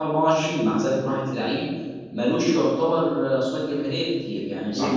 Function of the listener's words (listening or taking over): listening